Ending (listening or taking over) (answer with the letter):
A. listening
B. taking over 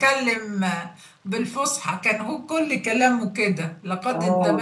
B